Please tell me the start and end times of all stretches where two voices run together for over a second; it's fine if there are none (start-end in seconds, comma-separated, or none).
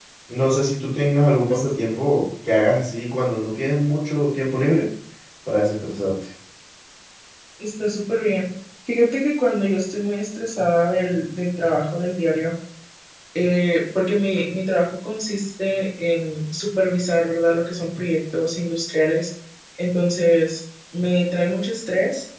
none